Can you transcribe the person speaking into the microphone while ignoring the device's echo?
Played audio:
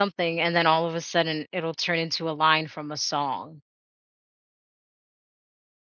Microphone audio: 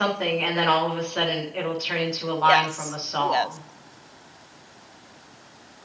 Yes. Yes.

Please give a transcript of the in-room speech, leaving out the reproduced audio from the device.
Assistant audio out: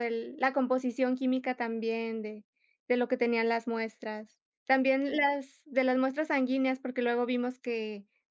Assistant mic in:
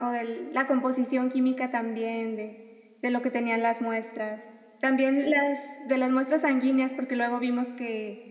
none

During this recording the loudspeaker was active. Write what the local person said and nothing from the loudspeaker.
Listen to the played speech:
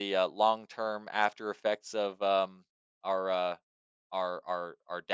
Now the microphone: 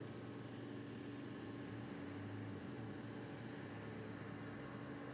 none

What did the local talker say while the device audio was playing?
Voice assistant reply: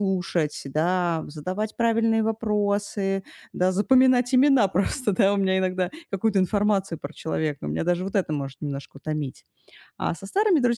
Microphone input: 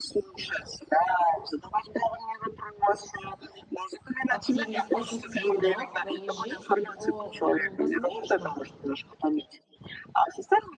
активность, позитив, да, в твоей жизни, то, м, возможно,

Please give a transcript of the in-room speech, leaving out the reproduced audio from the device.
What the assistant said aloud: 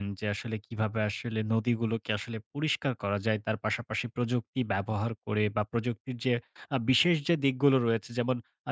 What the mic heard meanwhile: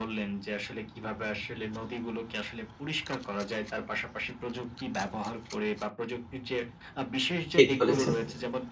ঠিক বলেছেন।

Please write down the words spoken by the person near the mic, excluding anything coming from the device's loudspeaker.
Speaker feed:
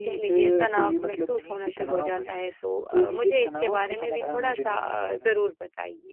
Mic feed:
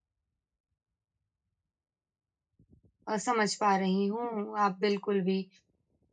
अ, समझ पा रही हूँ। आप बिल्कुल भी

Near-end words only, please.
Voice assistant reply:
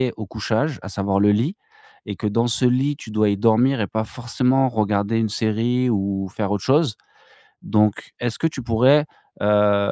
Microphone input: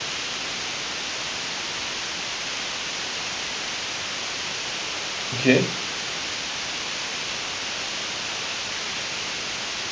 OK.

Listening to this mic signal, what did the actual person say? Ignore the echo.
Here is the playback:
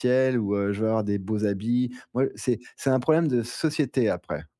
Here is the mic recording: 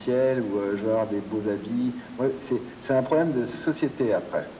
none

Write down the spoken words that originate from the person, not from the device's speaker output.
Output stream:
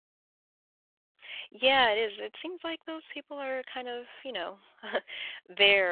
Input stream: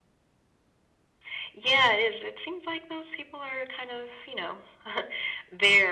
none

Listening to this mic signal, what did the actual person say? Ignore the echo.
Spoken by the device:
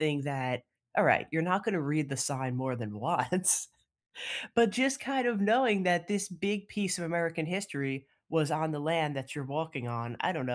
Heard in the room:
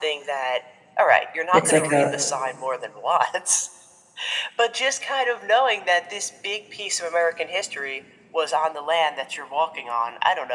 It's like a

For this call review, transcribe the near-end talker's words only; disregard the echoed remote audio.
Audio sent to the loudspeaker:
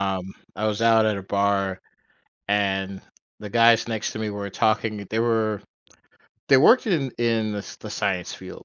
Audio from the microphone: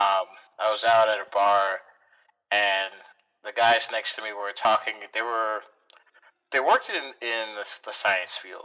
none

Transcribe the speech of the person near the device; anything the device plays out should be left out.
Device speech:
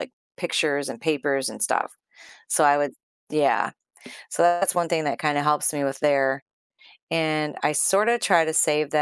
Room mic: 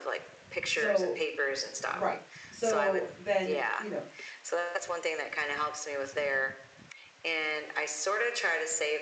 So, right. So then, you know,

